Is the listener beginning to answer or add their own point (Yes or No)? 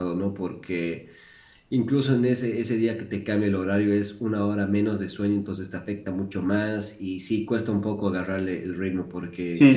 Yes